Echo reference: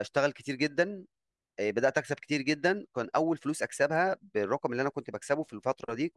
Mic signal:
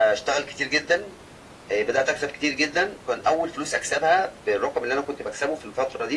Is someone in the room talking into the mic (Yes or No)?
No